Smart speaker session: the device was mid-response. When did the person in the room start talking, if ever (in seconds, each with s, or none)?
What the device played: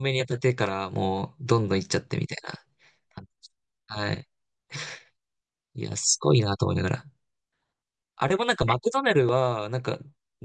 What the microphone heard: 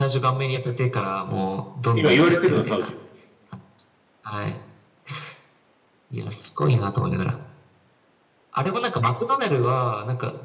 1.9 s